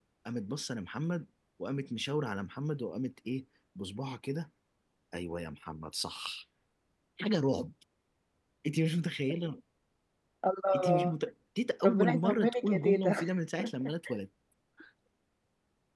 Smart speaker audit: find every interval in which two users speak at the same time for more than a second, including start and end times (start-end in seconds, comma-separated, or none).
11.8-13.2